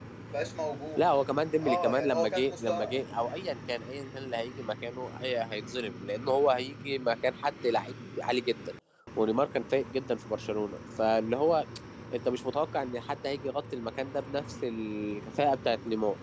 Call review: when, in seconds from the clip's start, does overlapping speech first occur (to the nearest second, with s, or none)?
2 s